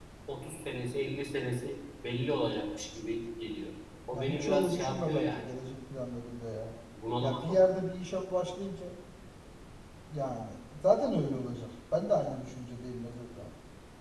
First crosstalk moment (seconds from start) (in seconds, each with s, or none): 4.1 s